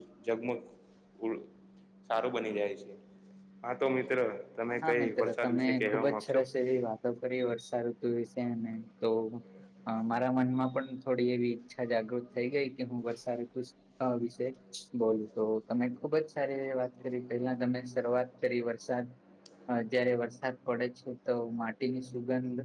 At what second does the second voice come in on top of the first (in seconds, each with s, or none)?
4.8 s